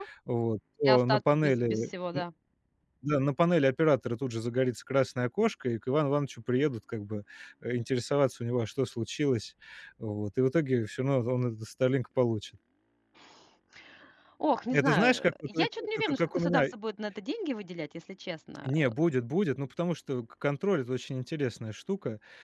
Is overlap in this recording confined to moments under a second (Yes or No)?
No